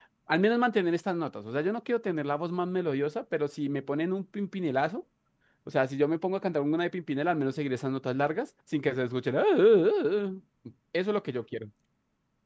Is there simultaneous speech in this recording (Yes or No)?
No